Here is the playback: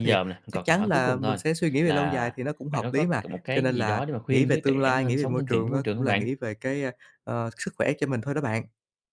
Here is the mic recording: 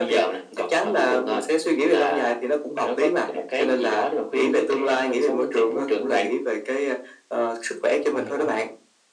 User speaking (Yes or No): Yes